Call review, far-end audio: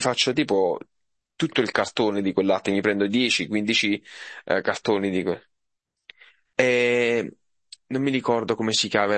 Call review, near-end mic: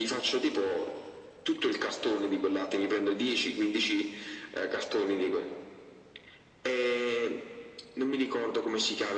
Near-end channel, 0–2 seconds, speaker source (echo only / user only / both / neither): echo only